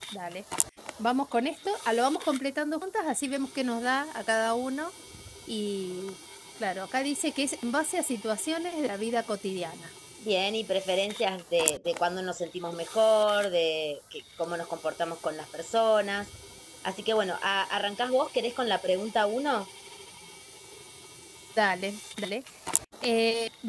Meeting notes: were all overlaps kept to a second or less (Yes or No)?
Yes